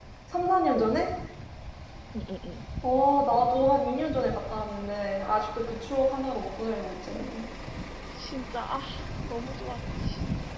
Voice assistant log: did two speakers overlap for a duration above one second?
No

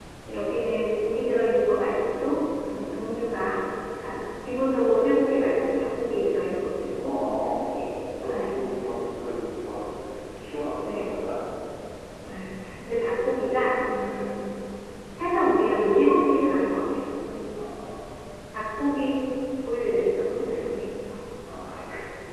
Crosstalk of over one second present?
No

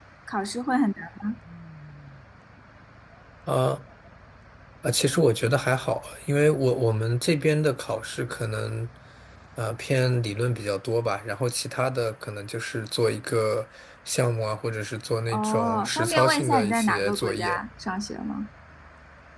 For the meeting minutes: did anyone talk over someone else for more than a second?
Yes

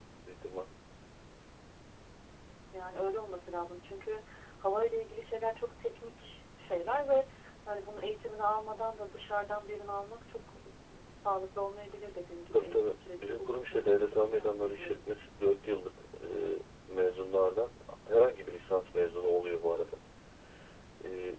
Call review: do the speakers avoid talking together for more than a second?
No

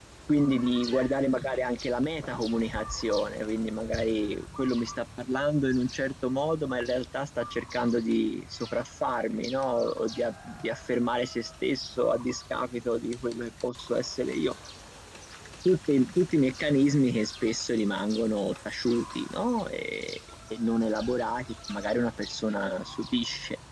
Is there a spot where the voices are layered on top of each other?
No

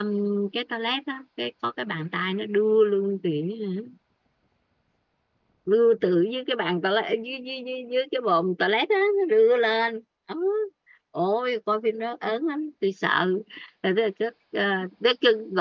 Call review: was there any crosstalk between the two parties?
No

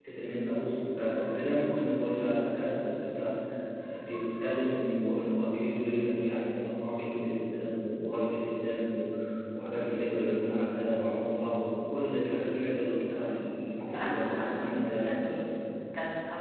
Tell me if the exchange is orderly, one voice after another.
No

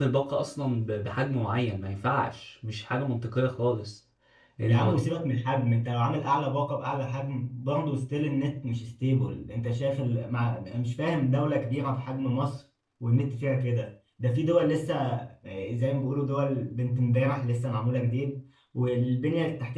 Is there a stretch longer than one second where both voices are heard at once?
No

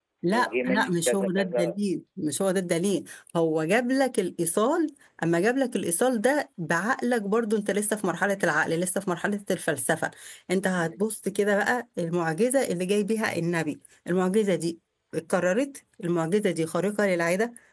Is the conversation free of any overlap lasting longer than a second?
No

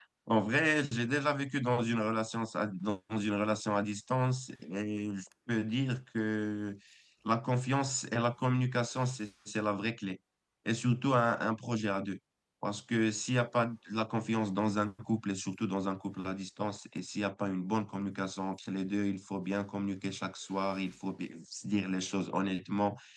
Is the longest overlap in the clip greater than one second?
No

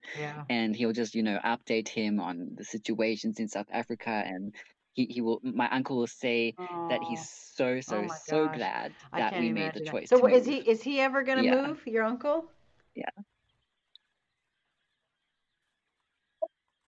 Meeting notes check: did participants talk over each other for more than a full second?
Yes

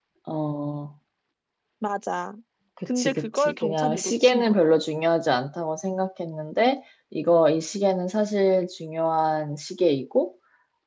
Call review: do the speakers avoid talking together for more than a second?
No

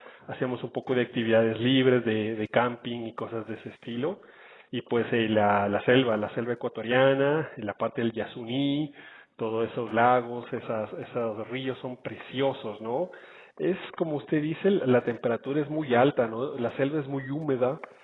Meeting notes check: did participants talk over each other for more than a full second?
No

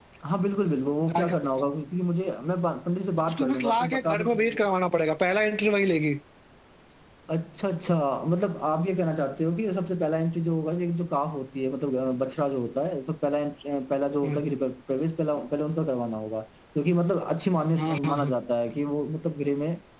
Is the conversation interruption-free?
No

